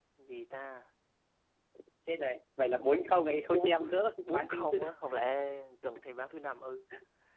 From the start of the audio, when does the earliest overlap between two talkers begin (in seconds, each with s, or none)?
3.5 s